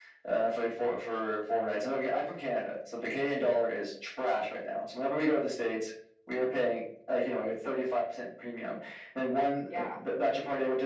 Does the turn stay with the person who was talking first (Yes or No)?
Yes